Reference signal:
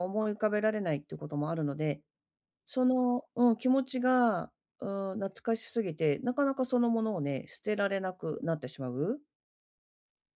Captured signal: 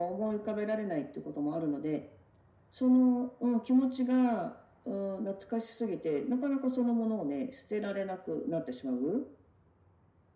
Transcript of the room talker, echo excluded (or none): none